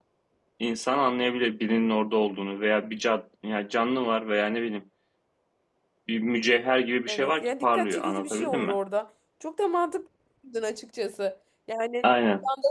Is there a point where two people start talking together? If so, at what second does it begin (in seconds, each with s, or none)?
7.1 s